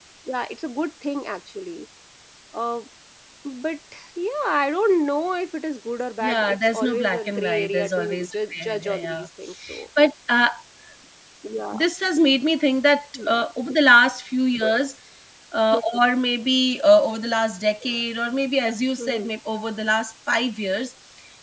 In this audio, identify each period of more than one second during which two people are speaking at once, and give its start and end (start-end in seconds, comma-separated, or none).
6.2-9.3